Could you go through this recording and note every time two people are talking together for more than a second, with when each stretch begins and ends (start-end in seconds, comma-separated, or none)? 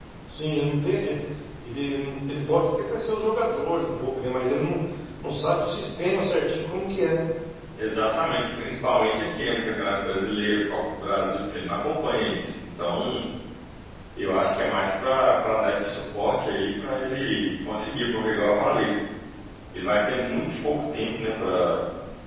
none